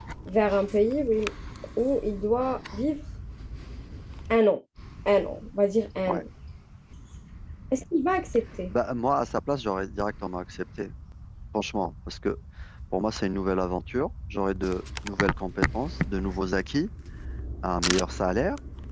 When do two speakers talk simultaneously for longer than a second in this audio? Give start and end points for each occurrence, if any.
none

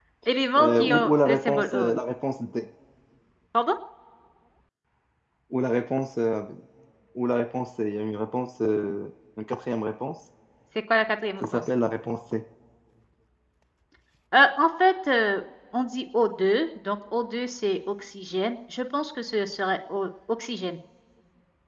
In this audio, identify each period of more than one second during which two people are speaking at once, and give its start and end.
0.6-1.9

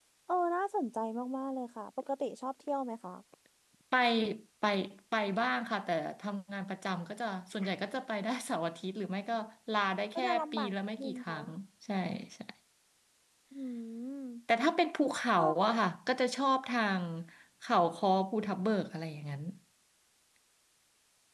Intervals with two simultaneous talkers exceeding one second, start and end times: 10.2-11.4

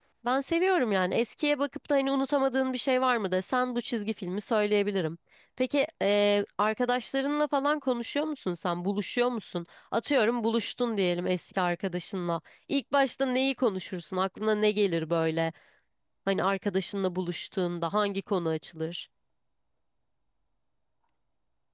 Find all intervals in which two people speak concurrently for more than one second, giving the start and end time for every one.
none

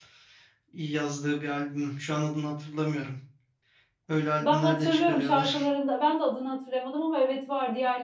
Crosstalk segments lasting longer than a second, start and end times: 4.4-5.7

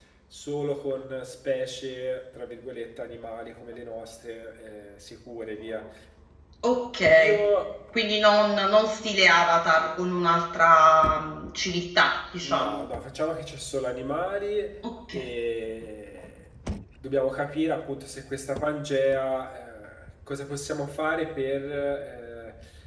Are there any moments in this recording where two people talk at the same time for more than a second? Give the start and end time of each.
none

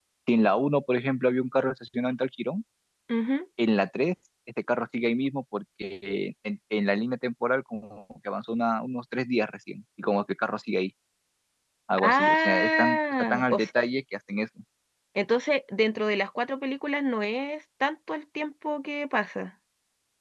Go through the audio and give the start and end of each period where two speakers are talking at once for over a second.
12.0-13.6

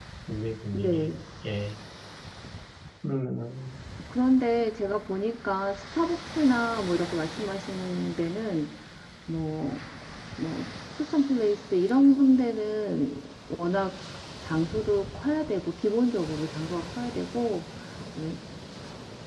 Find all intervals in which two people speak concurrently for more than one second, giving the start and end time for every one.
none

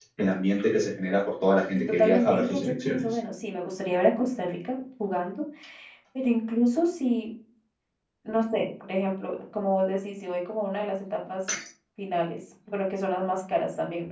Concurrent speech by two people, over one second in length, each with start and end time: 1.7-3.0

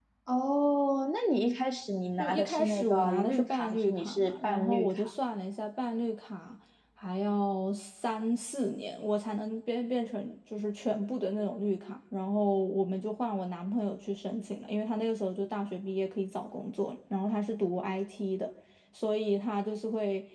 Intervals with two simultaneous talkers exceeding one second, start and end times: 2.2-5.1

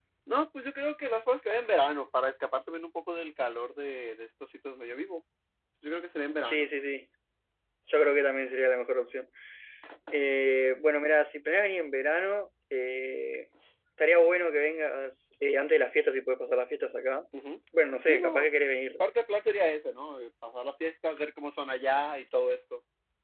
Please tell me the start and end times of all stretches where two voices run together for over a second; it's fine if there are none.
none

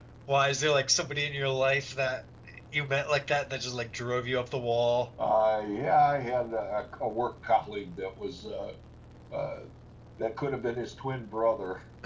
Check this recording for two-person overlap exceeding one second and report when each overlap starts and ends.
none

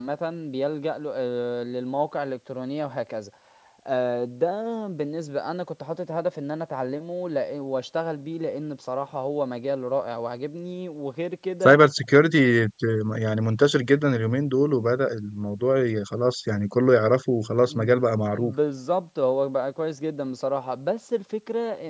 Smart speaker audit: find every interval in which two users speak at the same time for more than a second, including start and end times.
none

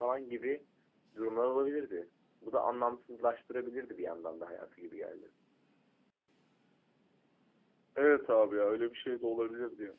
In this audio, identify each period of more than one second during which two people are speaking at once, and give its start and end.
none

